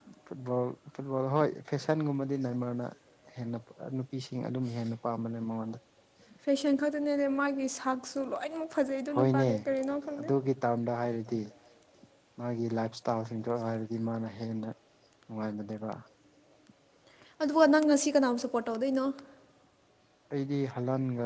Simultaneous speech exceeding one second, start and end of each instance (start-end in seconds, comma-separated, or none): none